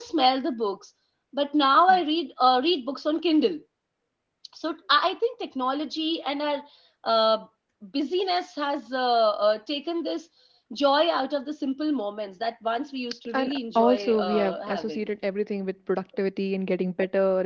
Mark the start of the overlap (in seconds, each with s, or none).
13.3 s